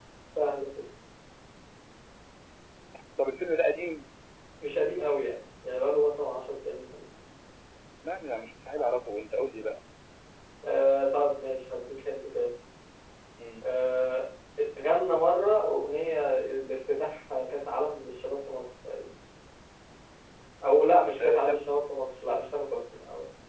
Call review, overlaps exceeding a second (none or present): none